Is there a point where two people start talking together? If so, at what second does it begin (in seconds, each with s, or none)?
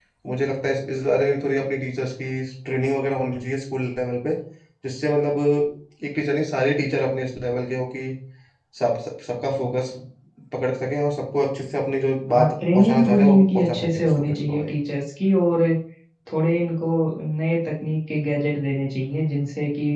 12.3 s